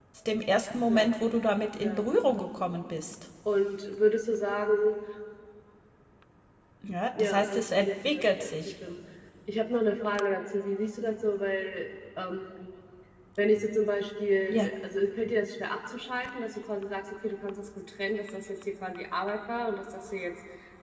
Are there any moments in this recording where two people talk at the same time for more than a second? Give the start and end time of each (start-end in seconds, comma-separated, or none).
7.2-8.6